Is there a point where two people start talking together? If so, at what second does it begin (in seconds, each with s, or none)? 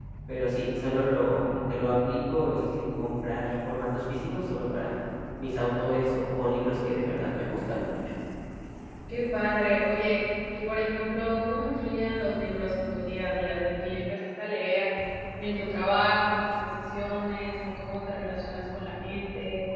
none